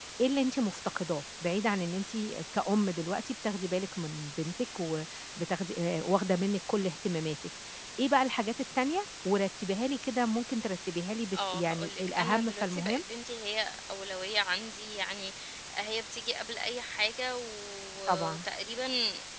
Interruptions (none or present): present